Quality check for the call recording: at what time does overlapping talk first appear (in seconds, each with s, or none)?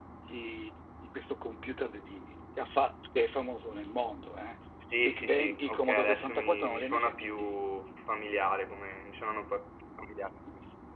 5.0 s